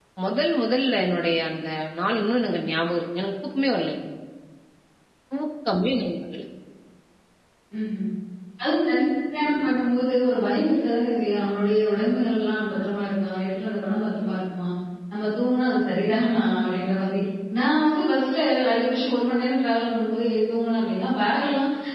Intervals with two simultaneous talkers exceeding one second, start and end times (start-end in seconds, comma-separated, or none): none